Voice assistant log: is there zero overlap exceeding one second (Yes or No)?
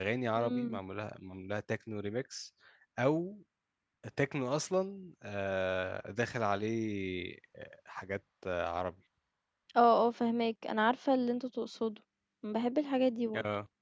Yes